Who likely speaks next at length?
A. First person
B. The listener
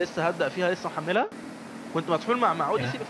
A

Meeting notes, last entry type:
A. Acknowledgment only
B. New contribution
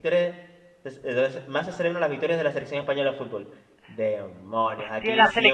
B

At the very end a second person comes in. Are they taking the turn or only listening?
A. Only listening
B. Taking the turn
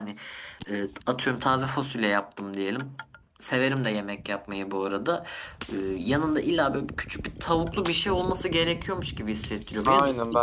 B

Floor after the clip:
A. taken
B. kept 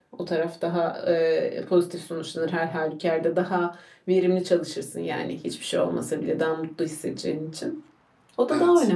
B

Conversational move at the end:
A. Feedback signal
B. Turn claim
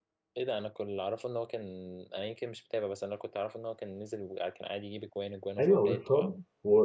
B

